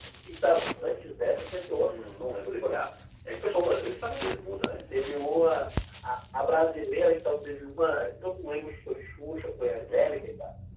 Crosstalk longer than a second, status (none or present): none